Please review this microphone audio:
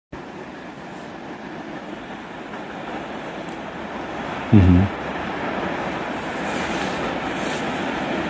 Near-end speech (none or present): present